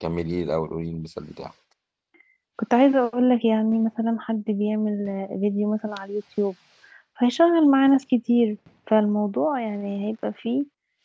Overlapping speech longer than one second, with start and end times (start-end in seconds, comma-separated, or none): none